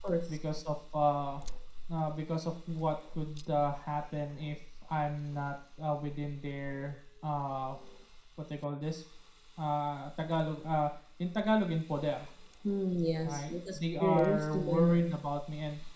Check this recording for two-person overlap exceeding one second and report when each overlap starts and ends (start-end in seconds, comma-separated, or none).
13.2-15.2